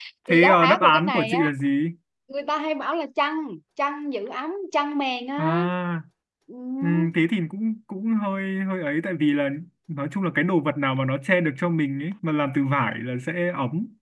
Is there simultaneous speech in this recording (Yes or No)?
Yes